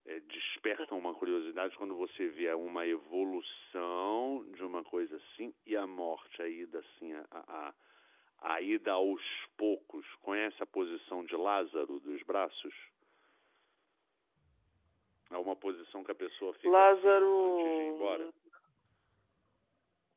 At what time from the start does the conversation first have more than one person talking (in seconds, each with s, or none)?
16.6 s